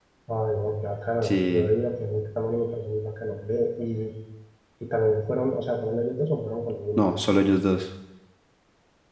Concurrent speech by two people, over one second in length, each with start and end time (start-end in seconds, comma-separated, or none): none